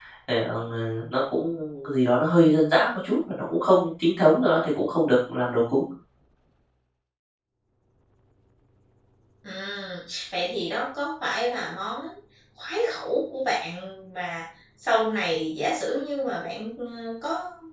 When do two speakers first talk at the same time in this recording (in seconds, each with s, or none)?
none